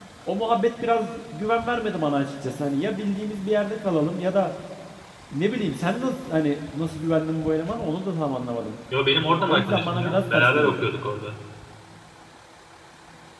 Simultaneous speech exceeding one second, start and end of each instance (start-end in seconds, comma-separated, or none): 9.5-10.8